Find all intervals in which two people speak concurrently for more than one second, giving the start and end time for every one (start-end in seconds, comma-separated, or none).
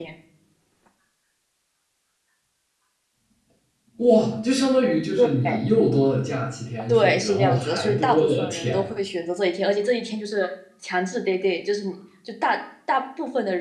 6.9-8.8